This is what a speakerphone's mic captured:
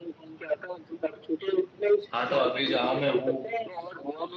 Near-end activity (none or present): present